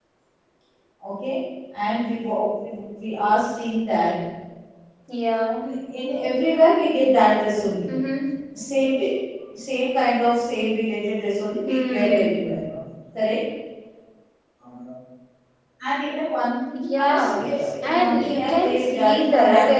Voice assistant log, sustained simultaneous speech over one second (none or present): present